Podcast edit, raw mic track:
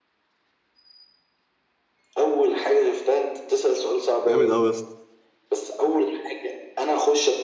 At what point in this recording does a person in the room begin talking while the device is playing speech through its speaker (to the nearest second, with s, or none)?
4 s